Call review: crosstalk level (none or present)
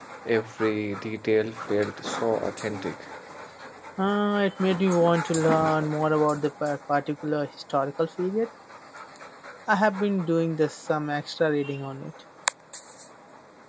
none